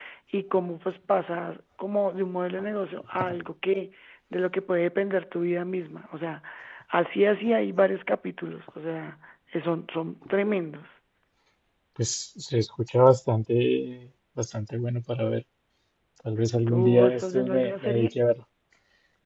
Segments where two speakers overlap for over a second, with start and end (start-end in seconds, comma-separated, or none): 16.7-18.1